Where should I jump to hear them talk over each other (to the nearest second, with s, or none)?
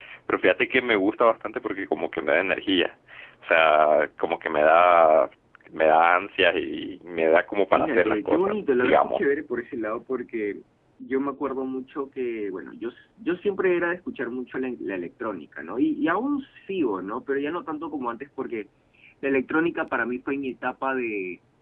8 s